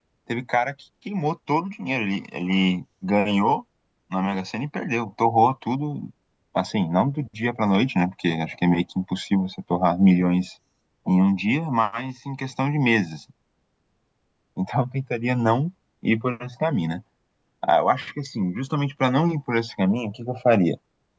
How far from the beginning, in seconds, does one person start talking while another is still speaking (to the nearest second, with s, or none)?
none